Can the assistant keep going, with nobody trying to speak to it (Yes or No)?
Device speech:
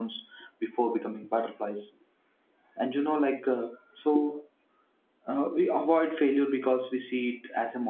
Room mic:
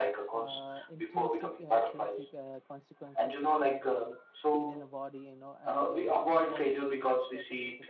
No